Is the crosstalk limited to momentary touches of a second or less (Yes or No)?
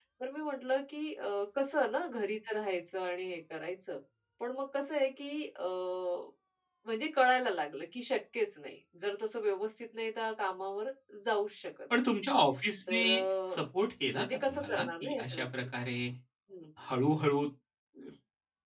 No